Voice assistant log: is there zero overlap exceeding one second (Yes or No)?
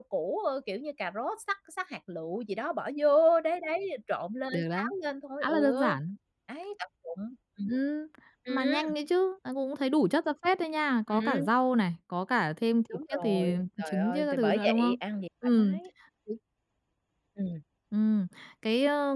No